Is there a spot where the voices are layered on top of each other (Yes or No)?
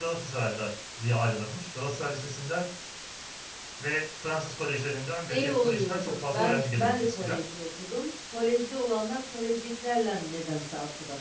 Yes